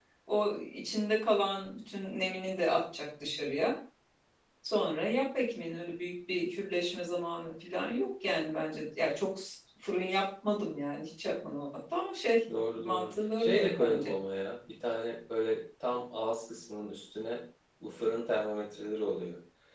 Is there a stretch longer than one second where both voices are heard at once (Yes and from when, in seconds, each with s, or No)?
Yes, from 12.7 s